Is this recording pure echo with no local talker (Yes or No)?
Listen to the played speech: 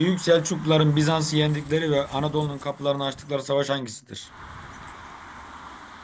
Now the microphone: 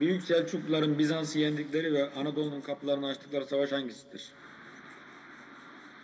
Yes